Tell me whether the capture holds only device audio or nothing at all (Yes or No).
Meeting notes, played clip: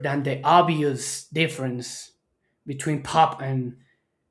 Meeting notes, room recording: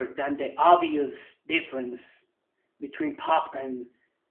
Yes